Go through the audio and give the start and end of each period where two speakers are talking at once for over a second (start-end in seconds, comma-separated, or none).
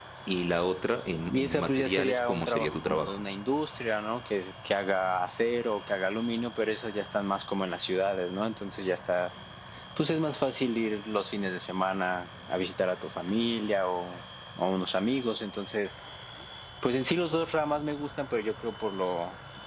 1.3-3.1